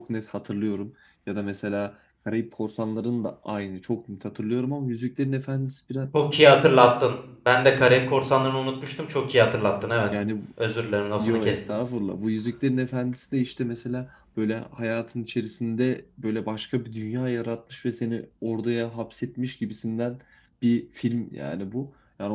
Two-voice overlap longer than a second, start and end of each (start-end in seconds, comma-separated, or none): none